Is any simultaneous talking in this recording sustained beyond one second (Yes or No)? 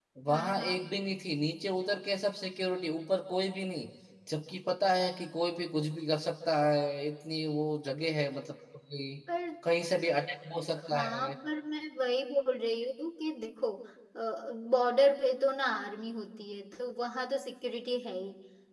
No